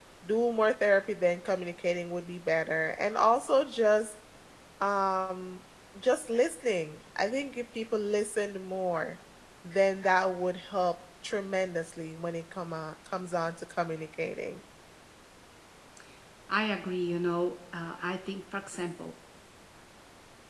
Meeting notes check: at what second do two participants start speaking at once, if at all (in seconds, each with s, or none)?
none